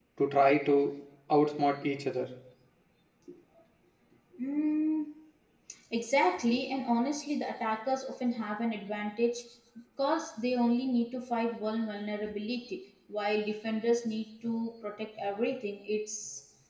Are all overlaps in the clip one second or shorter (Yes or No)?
Yes